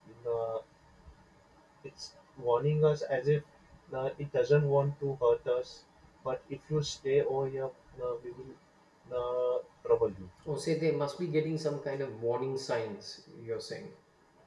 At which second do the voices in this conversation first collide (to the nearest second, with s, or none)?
none